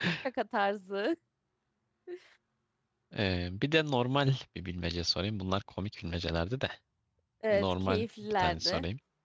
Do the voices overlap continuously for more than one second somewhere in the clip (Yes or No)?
Yes